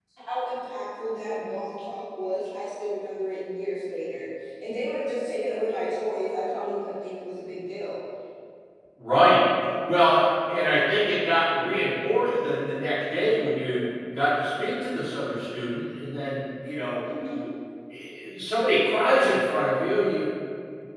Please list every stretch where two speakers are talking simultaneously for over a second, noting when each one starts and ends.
none

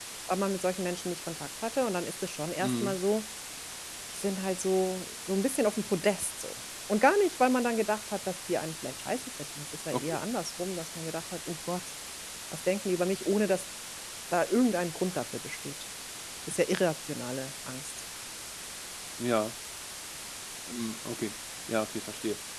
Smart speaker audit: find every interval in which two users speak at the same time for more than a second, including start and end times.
none

